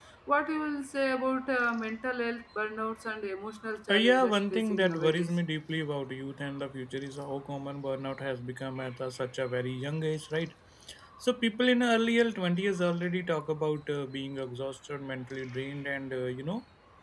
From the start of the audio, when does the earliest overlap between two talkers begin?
3.9 s

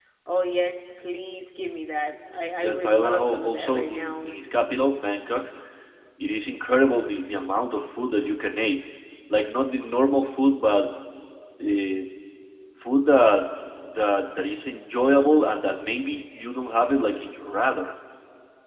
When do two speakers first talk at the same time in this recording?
2.6 s

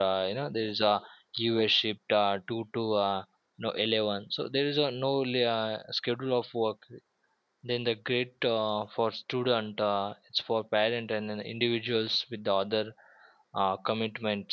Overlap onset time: none

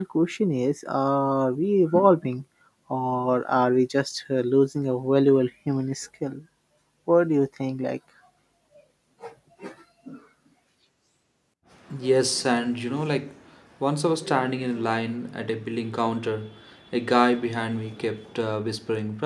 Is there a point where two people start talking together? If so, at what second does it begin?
none

